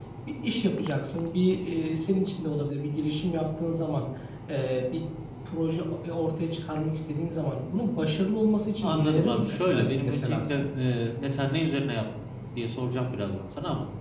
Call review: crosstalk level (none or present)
present